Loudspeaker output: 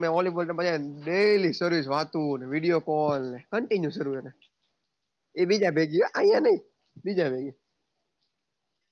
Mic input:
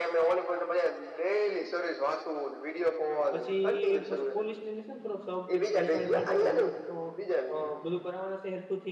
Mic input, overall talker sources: both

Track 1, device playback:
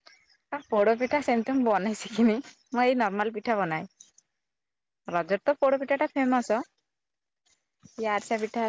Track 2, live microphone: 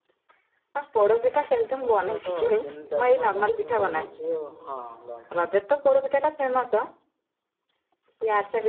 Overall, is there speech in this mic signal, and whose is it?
both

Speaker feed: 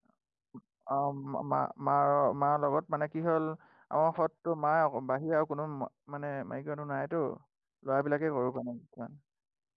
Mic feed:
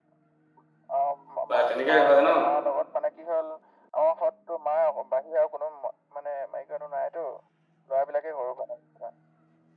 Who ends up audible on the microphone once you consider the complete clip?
both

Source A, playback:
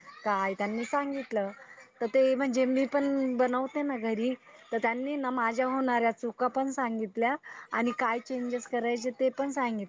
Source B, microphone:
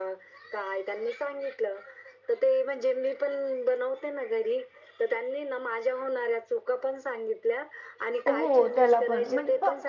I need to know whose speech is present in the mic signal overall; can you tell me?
both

